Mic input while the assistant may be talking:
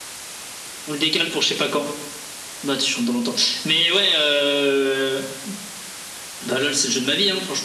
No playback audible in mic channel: No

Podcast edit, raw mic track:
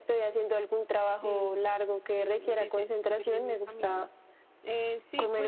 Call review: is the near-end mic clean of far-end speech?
No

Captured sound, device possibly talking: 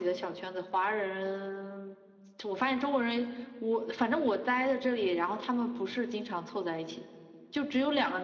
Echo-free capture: No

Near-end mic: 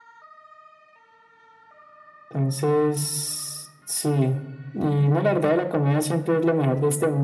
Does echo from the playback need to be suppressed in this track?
Yes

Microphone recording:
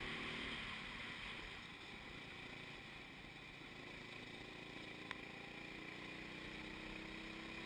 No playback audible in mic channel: Yes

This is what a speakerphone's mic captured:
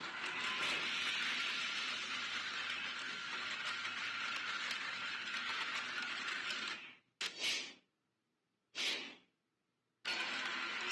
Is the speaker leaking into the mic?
No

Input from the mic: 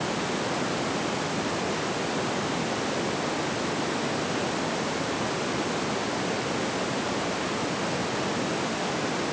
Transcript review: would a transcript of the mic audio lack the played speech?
Yes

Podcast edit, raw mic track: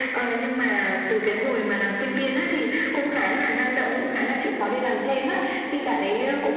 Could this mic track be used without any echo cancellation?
No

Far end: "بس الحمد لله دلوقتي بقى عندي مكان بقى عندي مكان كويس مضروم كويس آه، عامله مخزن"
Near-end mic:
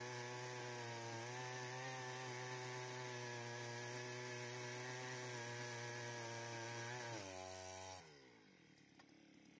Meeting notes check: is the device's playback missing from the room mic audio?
Yes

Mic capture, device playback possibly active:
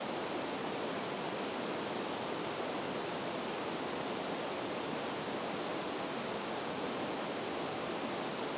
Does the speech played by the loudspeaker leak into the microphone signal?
No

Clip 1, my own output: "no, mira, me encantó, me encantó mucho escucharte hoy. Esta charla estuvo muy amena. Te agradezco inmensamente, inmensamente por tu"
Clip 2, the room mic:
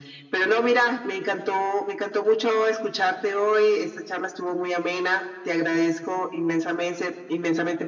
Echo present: Yes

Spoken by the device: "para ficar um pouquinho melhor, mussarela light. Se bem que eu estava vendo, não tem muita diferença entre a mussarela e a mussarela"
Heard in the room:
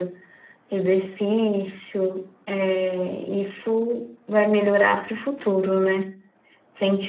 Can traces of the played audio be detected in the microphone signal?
No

